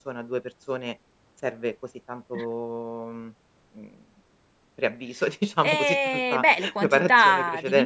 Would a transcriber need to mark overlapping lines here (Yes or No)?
Yes